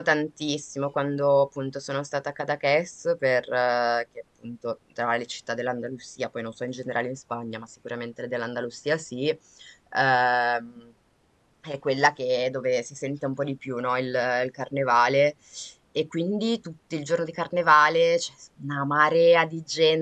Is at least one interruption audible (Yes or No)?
No